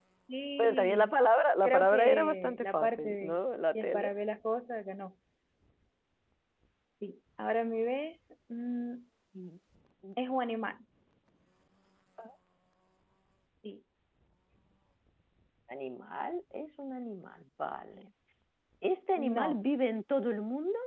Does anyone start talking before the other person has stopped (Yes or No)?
Yes